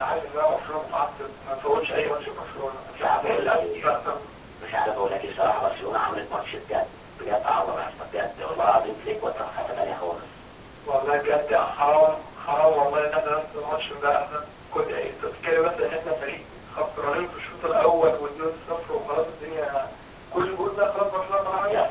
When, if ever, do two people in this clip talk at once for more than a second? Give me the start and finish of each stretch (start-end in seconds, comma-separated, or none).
2.8-4.1